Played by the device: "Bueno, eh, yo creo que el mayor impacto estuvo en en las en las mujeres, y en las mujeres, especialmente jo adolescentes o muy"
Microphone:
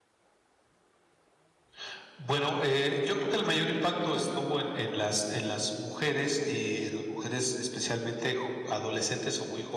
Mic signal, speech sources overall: echo only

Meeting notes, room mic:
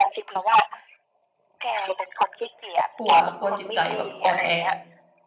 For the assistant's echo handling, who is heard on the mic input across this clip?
both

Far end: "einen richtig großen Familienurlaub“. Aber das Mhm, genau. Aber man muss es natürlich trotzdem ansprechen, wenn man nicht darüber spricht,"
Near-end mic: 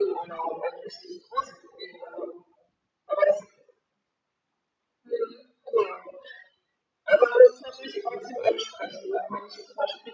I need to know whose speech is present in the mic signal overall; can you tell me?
echo only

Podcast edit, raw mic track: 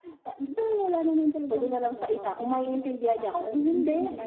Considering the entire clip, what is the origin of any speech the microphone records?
echo only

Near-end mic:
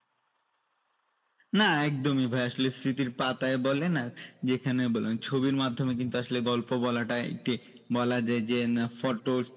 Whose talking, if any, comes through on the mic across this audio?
echo only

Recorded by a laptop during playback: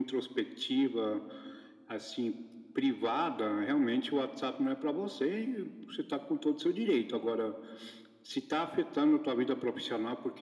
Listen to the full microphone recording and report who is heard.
echo only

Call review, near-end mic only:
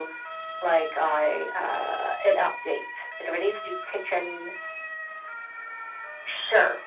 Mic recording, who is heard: echo only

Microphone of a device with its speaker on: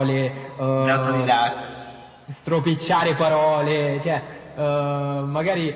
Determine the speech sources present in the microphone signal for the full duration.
both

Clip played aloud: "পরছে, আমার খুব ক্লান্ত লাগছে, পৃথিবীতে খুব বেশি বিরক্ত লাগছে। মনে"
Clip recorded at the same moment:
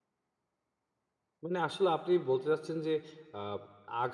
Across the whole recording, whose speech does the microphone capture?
user only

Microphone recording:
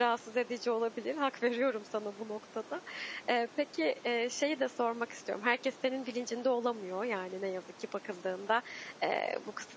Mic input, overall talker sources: user only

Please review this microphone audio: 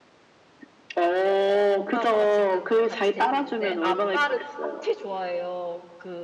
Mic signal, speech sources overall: both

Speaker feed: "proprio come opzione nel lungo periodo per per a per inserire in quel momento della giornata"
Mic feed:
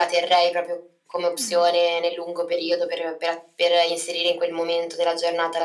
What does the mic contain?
both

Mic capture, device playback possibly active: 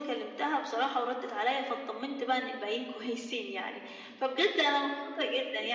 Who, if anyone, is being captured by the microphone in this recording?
echo only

